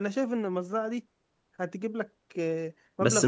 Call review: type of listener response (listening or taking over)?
taking over